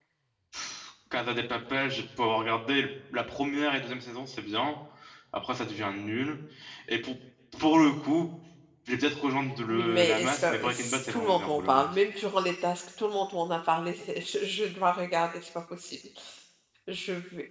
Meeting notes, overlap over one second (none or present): present